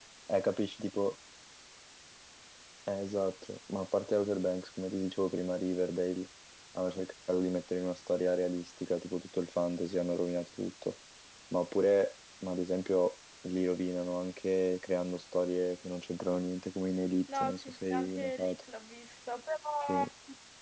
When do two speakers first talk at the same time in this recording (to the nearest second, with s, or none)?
17 s